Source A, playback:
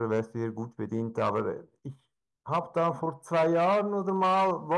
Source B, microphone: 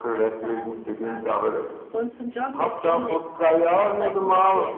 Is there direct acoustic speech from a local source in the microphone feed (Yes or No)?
Yes